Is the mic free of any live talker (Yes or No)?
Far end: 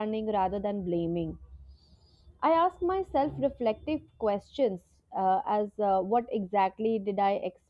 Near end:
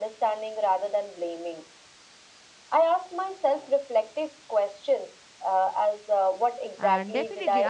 No